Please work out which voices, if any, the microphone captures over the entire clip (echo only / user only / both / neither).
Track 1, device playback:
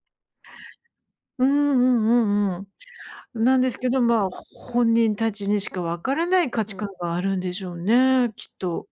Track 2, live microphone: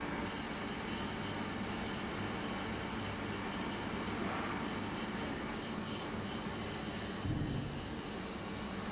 neither